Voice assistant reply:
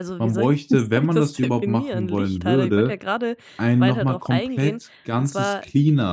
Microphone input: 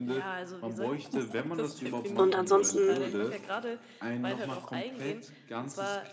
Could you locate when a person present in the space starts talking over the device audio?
2.1 s

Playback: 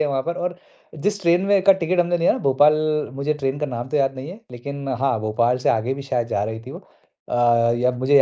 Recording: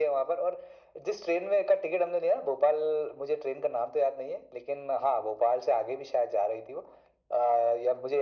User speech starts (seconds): none

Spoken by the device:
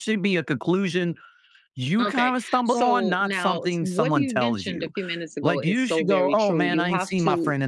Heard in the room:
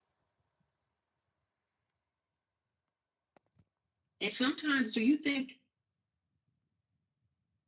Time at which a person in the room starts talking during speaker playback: 4.2 s

